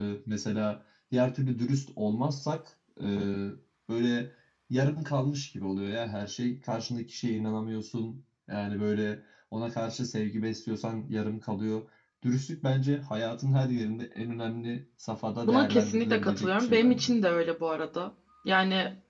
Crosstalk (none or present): present